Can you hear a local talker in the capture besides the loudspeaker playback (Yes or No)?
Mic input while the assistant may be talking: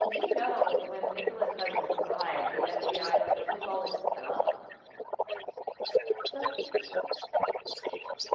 Yes